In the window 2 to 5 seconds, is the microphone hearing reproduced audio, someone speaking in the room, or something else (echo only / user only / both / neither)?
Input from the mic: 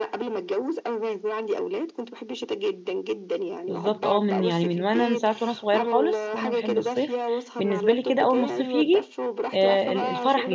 both